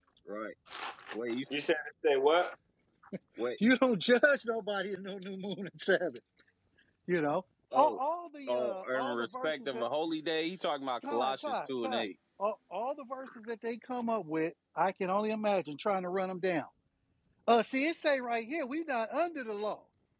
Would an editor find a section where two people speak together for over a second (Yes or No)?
Yes